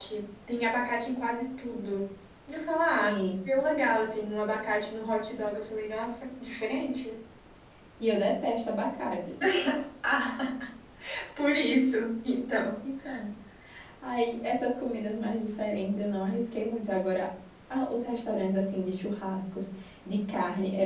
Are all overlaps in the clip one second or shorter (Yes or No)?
Yes